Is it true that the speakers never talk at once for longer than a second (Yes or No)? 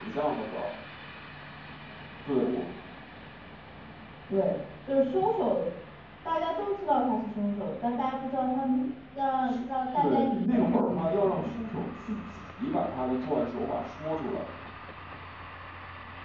No